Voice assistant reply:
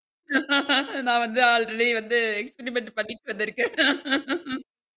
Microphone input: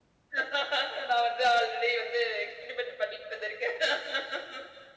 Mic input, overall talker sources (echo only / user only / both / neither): echo only